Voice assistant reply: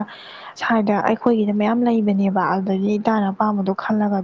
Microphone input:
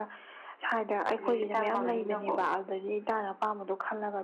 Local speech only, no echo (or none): ꯂꯦꯛꯁꯦ ꯇꯝꯃꯕꯅꯤꯅꯀꯣ